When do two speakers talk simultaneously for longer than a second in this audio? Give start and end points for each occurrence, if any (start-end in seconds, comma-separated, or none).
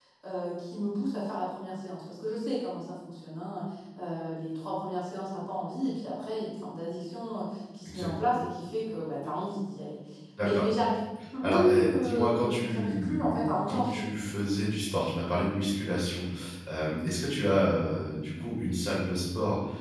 11.4-14.0